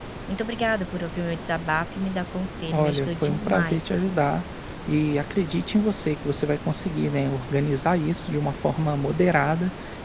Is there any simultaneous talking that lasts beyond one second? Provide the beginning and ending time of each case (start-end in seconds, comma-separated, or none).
2.7-4.0